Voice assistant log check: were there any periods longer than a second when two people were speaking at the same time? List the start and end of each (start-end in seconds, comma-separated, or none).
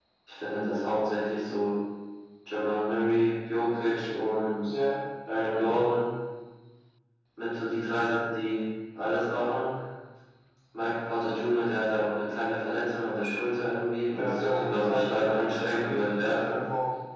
14.1-16.6